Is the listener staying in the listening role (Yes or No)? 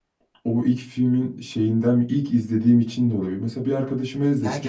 No